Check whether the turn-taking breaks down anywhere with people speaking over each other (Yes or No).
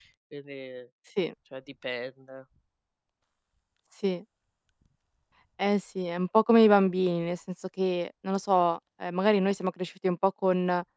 No